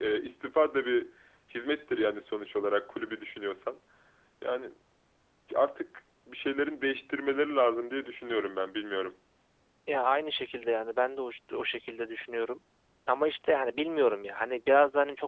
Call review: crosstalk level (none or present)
none